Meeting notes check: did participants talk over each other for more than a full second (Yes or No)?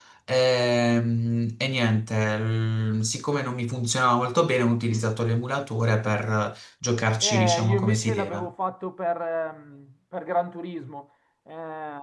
Yes